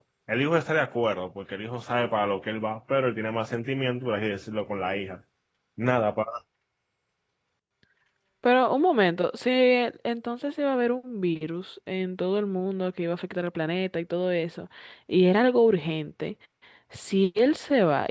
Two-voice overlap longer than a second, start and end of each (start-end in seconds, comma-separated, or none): none